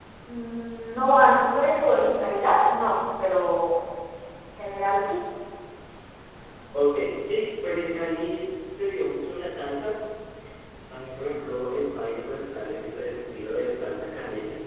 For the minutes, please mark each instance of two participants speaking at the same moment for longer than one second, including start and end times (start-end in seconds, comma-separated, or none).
none